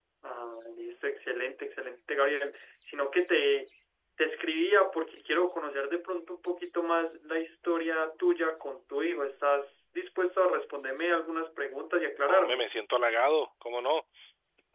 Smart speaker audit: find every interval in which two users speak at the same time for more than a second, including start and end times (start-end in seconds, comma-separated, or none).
none